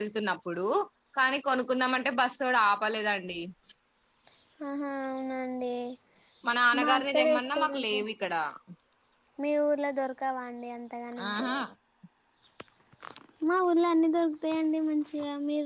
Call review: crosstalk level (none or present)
present